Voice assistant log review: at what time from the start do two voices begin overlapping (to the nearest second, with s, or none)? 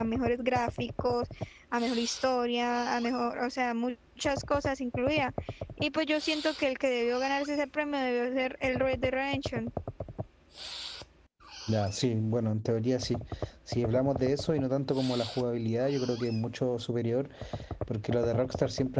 none